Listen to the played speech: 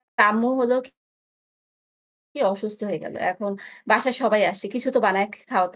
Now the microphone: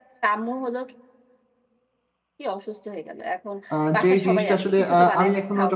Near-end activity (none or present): present